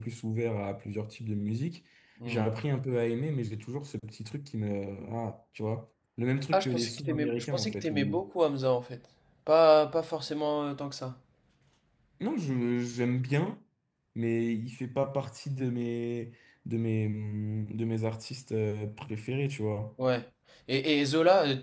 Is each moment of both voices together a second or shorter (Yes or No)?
No